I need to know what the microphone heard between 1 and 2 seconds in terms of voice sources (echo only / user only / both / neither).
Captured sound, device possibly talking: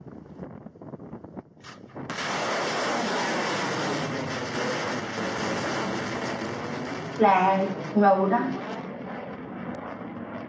neither